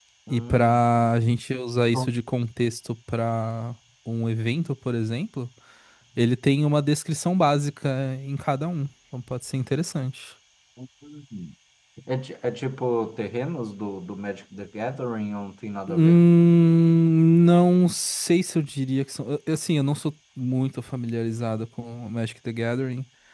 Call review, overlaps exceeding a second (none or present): none